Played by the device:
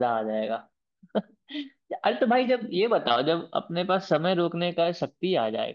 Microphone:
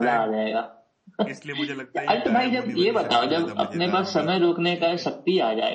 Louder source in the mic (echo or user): echo